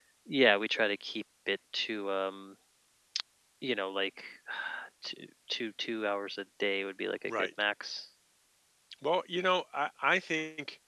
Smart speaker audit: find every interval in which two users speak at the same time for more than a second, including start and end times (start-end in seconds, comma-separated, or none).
none